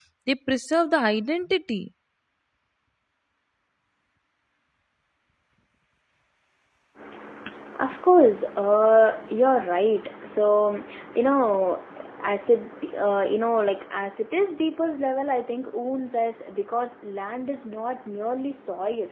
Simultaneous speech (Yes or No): No